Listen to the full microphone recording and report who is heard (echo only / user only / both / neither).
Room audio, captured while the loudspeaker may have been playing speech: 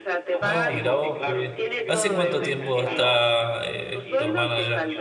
both